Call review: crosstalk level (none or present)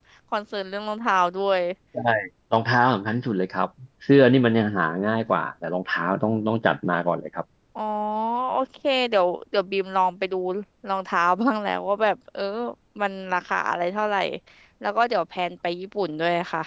none